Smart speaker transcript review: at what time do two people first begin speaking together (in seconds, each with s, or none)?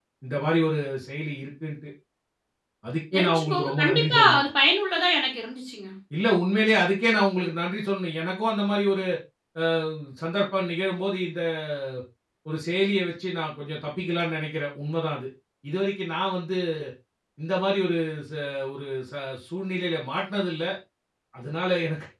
3.1 s